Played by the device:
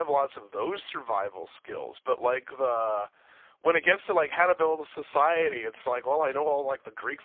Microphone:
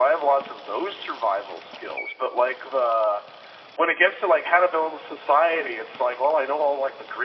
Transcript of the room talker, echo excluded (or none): none